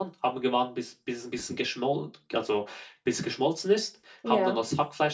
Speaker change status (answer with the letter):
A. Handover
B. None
B